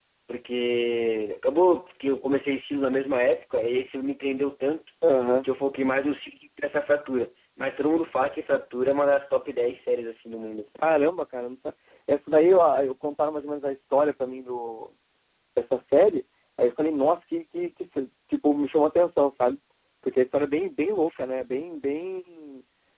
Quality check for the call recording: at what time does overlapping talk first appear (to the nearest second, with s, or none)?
none